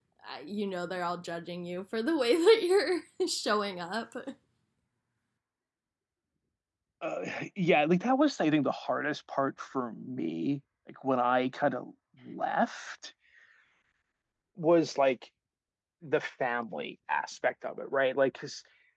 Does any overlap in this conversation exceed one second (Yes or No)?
No